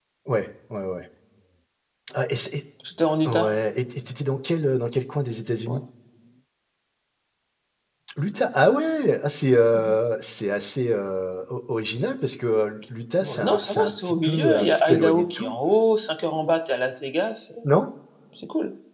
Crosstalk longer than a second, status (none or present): present